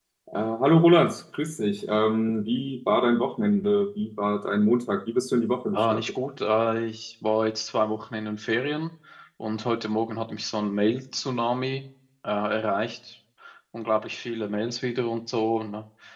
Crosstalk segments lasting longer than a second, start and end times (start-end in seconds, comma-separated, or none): none